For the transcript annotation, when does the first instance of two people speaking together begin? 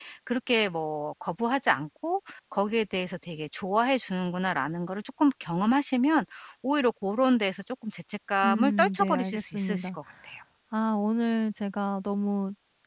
8 s

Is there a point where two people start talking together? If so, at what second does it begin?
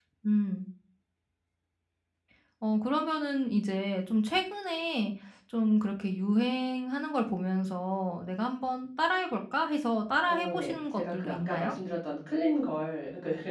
10 s

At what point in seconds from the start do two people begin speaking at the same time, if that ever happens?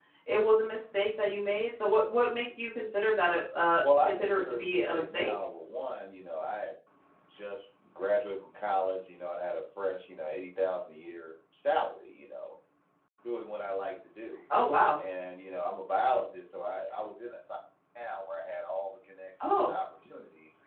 4 s

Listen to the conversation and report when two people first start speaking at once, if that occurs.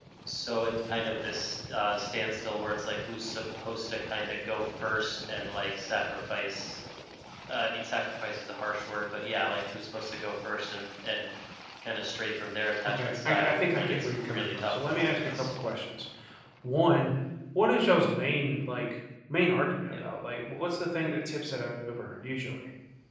13 s

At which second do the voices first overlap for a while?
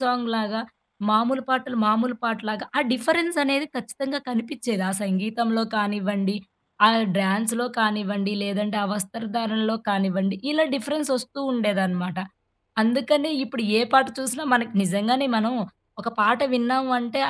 none

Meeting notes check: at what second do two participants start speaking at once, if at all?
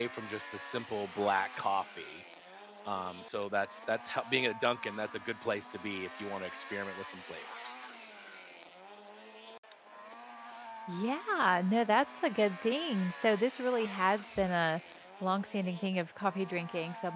none

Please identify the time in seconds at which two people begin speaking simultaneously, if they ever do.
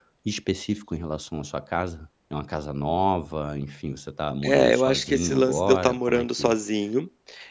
4 s

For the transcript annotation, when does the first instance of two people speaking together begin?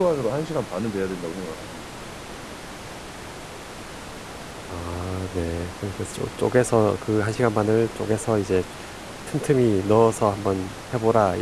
none

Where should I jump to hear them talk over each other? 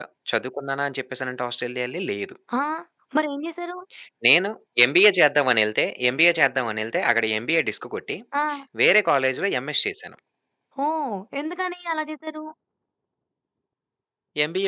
none

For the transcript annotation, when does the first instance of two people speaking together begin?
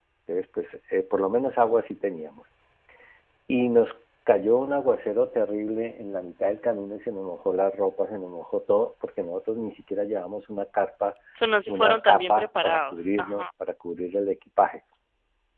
12 s

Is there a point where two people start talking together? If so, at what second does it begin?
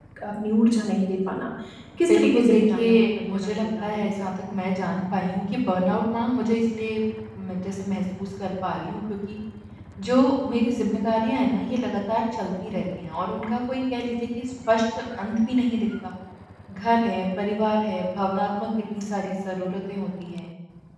2 s

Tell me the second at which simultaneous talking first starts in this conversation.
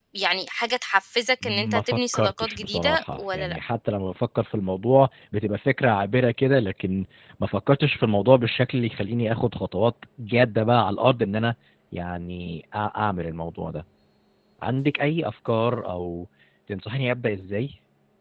1 s

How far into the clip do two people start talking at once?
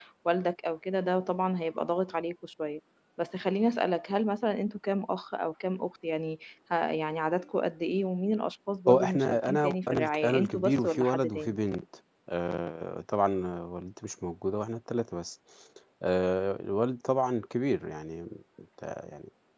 9 s

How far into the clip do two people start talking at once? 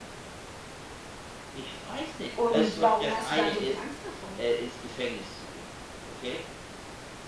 2 s

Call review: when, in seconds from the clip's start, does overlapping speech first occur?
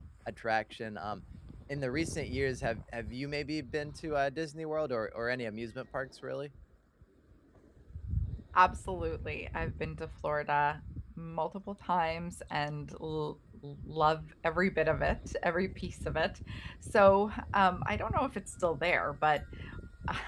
none

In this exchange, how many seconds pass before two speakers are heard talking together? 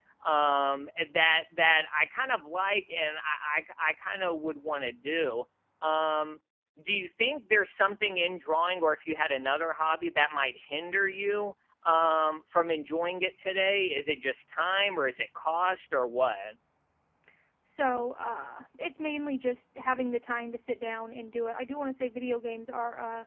none

